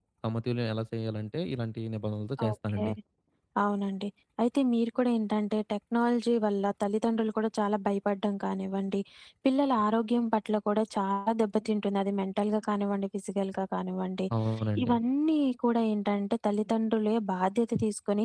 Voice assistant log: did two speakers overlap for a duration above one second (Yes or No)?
No